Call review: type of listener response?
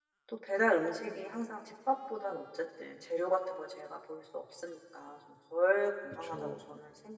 listening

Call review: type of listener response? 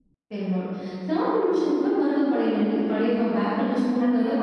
taking over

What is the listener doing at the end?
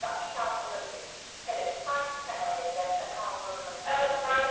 taking over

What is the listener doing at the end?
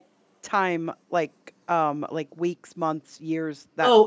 taking over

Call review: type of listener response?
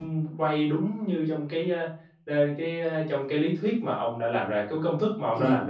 taking over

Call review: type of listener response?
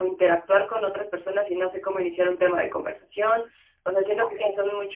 listening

